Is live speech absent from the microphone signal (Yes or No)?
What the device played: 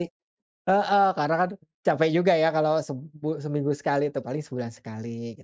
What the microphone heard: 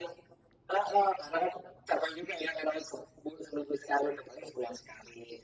Yes